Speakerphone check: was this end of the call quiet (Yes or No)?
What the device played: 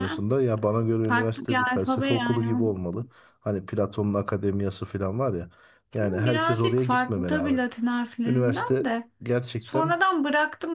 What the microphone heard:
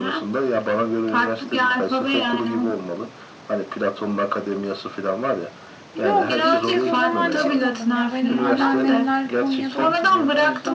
No